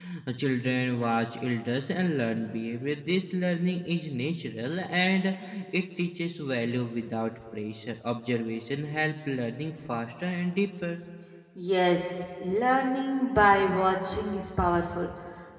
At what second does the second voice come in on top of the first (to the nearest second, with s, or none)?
none